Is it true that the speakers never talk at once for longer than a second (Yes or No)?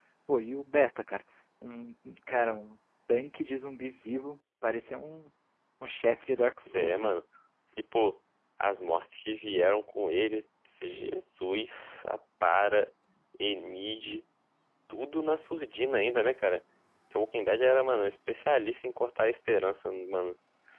Yes